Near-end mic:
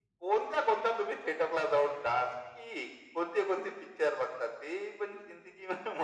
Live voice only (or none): none